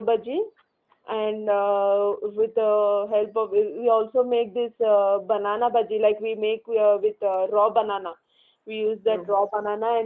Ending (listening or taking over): listening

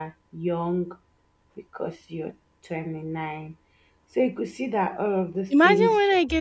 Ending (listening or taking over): taking over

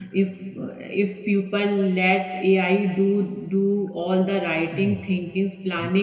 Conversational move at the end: listening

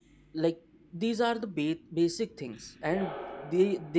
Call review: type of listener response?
listening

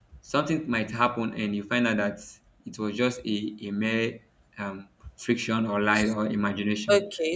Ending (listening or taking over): taking over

